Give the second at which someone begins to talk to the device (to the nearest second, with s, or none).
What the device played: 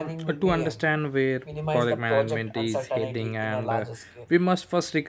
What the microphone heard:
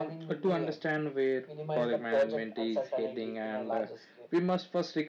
none